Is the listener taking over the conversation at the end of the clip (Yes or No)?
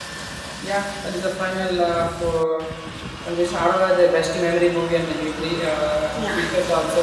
No